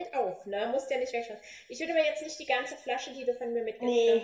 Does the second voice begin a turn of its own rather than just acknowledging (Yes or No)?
No